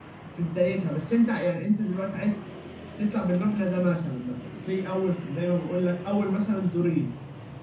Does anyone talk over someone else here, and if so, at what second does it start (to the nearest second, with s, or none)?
none